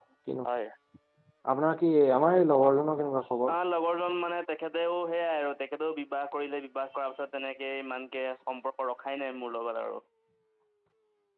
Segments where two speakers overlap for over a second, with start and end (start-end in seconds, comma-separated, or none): none